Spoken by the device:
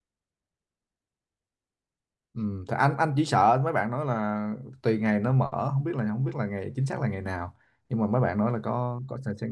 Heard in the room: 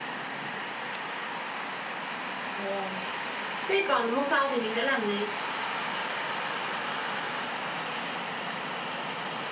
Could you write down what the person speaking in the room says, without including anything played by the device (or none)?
Dạ. thế còn hôm sau thì mình sẽ làm gì